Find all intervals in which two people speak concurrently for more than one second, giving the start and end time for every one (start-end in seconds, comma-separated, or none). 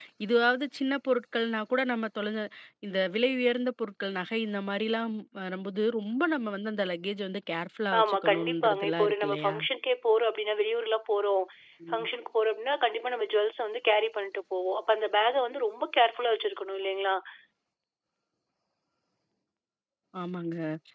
8.0-9.6